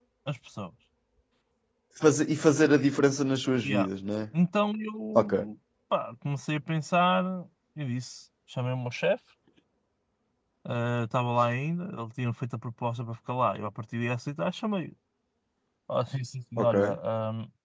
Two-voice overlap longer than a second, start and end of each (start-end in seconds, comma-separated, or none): none